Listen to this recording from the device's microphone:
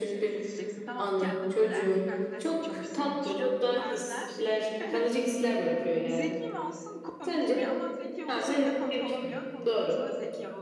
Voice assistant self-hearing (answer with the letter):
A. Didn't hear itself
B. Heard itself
B